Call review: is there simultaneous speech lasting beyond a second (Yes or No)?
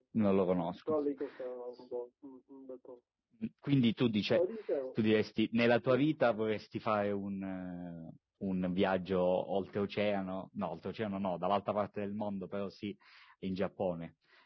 No